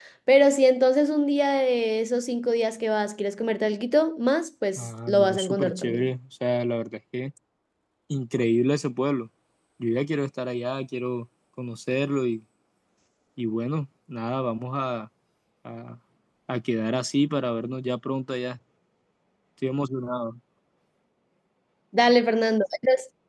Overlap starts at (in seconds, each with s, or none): 4.8 s